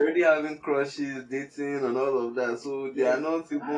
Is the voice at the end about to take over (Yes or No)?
Yes